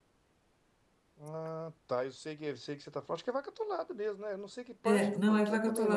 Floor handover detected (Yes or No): Yes